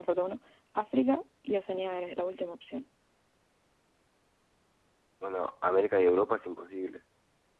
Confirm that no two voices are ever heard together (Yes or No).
Yes